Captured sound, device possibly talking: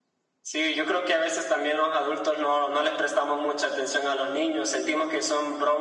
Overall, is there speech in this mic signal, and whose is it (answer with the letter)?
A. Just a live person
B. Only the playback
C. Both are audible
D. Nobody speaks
B